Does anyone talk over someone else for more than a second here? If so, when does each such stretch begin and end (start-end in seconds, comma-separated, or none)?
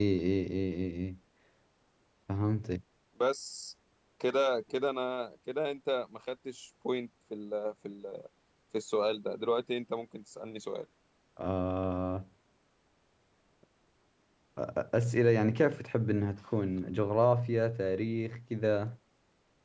none